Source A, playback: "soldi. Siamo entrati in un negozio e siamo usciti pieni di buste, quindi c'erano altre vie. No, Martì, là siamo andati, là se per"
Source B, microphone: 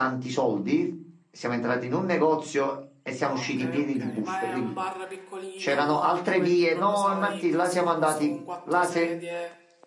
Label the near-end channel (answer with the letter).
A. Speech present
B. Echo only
A